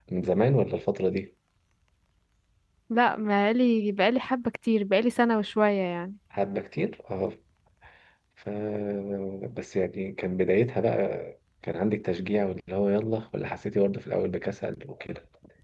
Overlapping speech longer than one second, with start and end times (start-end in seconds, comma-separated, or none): none